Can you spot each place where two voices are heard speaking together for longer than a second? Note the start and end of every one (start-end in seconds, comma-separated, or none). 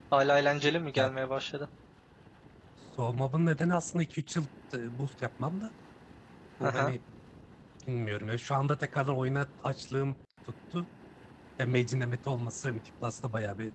none